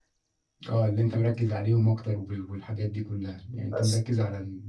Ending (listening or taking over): listening